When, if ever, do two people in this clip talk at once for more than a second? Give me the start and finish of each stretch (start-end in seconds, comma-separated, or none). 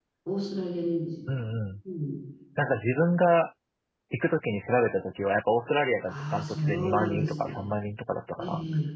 6.0-7.5